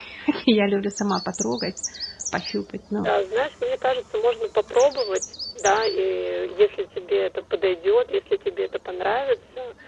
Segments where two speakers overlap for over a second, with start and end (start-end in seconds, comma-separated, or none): none